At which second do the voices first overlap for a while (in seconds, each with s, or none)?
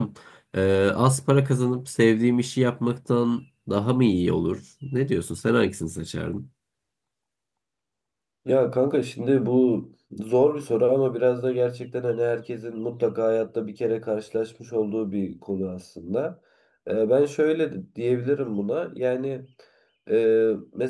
none